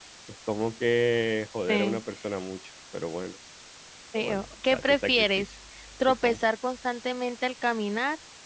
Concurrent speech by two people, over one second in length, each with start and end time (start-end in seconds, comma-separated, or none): 4.2-5.5